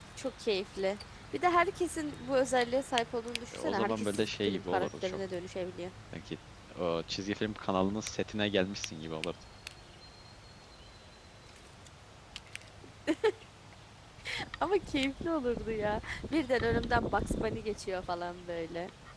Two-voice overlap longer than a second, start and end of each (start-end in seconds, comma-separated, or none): 3.5-5.2